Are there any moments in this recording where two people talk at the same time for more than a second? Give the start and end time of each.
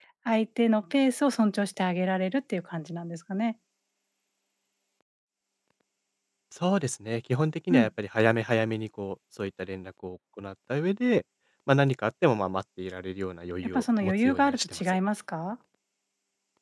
13.8-15.0

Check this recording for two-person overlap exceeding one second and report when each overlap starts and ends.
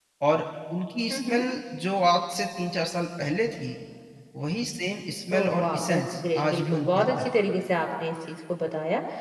5.3-7.3

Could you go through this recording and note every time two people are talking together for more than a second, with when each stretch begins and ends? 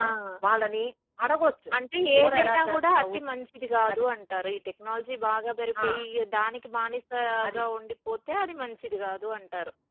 2.0-3.2

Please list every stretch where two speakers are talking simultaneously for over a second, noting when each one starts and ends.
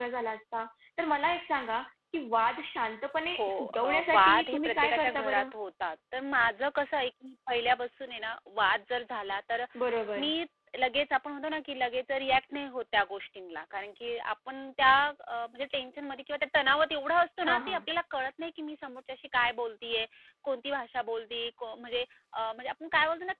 3.4-5.4

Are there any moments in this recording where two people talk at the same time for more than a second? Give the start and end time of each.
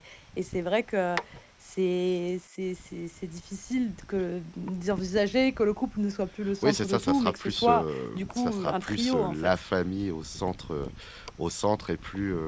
6.6-9.3

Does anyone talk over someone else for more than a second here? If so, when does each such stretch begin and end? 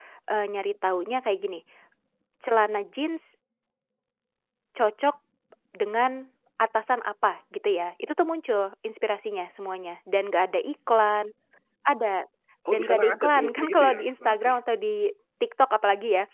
12.7-14.5

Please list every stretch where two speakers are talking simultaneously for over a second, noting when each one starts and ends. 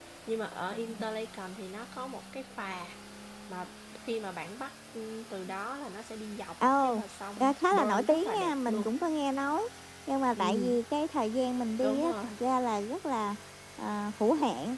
7.4-8.9

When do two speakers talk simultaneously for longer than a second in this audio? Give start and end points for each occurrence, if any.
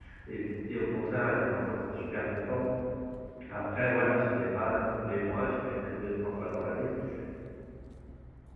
none

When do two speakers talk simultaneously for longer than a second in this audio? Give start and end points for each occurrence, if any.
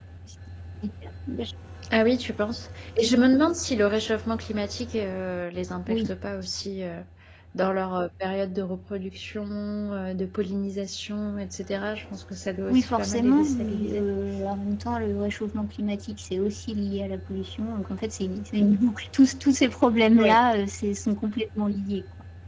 12.7-14.0

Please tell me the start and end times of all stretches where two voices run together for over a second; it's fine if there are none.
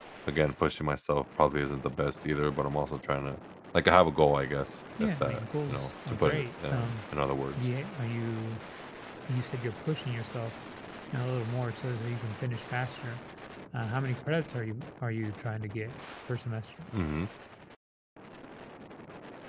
5.0-7.0

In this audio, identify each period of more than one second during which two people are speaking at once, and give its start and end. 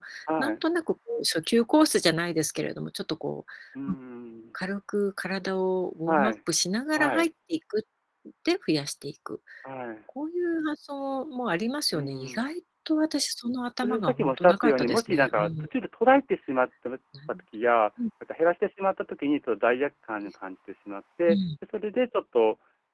13.8-15.7

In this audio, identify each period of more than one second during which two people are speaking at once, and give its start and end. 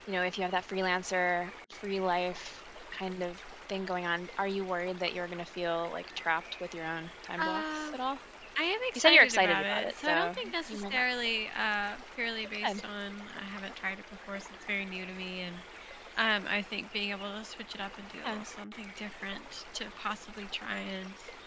8.9-11.0

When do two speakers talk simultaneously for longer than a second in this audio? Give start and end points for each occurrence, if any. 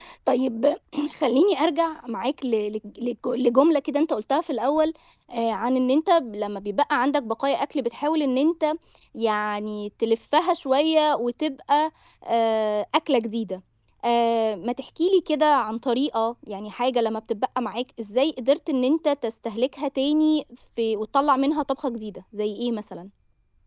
none

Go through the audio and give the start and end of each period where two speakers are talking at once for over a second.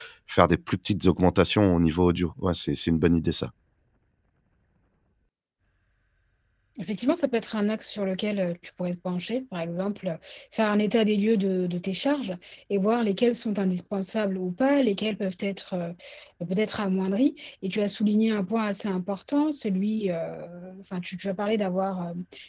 none

